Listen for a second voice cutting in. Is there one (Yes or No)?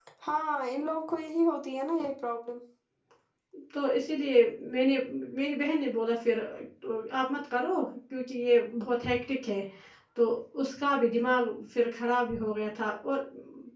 No